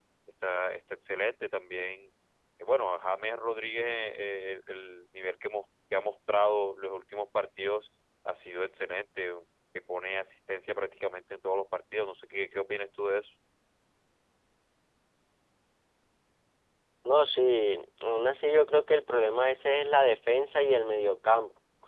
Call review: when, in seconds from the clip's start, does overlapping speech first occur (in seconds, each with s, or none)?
none